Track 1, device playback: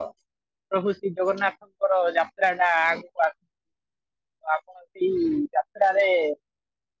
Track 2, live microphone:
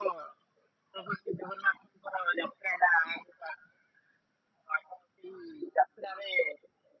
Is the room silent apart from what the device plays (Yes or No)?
Yes